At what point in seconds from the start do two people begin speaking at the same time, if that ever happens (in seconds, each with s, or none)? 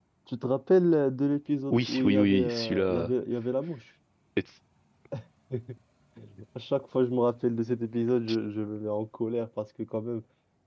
1.7 s